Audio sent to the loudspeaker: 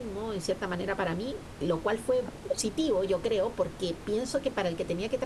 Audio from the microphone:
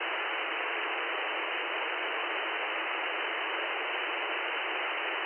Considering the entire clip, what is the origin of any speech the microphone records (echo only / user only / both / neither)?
neither